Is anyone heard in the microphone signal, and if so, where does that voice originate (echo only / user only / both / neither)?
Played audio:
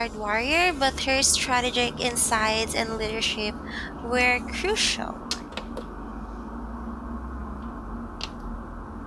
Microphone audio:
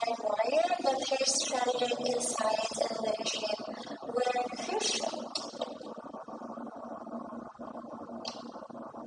echo only